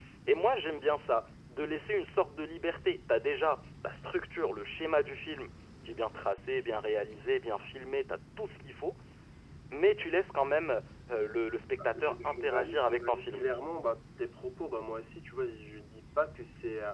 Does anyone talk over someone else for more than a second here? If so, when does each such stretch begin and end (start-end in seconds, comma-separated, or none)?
12.0-13.4